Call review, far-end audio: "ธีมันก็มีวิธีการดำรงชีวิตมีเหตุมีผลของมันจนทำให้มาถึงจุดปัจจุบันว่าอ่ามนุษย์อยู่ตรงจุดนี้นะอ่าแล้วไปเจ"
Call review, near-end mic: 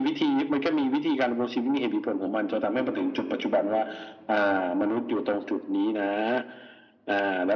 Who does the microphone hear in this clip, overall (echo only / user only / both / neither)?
echo only